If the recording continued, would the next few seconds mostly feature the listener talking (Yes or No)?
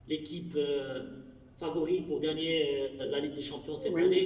Yes